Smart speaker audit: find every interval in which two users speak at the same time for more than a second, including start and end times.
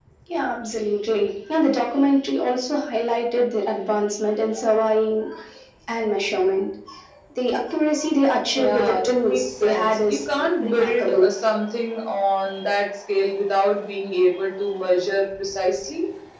8.5-11.3

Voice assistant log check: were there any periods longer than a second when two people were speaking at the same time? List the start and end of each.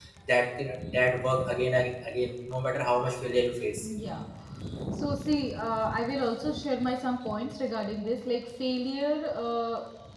none

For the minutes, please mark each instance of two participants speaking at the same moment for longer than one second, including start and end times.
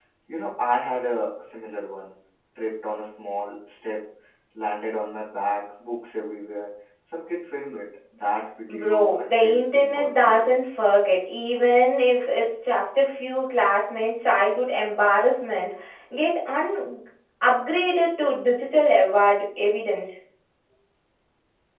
8.7-10.6

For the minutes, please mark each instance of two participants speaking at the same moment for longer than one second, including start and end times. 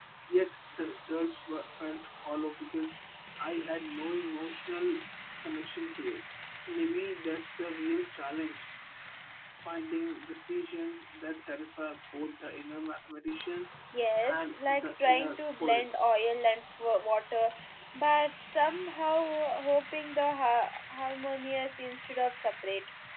14.3-16.0

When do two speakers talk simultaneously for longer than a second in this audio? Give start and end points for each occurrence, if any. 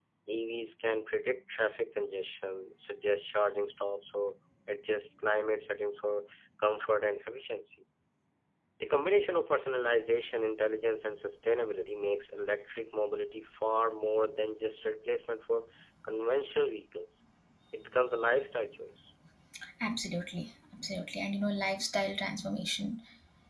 none

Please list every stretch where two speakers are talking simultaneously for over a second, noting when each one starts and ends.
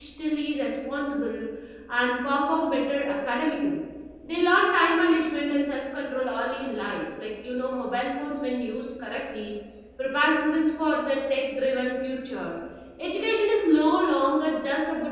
none

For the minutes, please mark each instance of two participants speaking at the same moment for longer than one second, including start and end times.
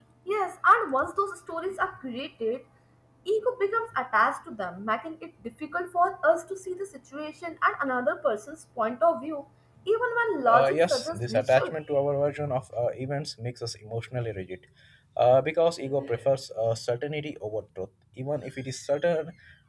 10.4-11.7

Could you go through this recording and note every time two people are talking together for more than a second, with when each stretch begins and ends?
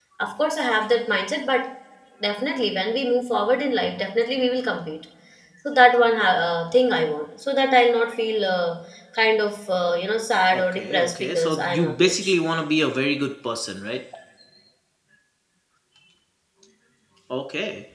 10.6-12.3

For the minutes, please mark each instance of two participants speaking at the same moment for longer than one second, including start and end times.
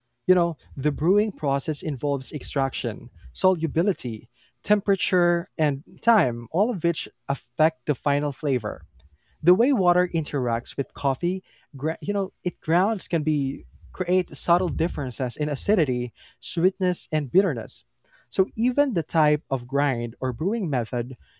none

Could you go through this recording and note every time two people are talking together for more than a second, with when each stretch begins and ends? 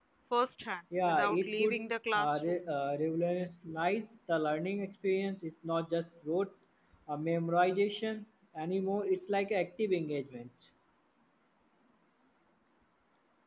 1.0-2.6

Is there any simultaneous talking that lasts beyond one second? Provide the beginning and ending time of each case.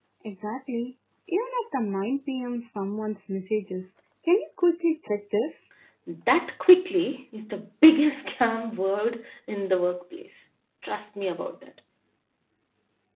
none

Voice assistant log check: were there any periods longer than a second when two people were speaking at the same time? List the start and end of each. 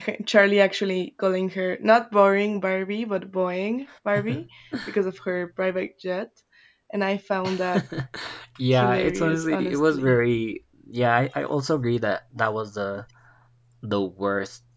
8.7-10.2

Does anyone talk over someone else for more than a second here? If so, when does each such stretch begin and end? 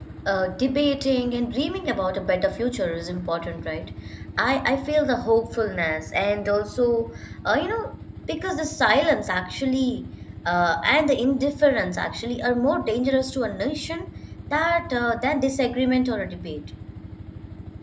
none

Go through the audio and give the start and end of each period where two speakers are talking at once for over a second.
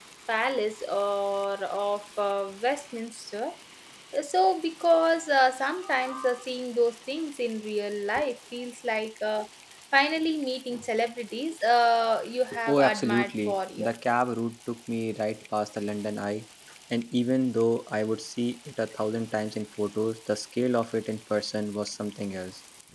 12.7-13.9

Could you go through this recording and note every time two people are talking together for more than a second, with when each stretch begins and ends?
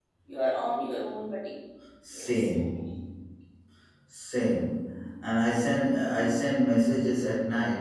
none

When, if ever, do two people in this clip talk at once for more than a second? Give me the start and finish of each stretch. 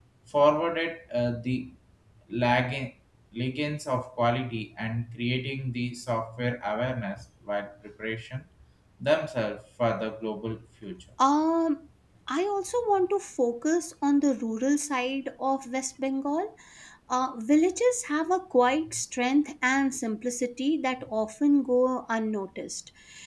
none

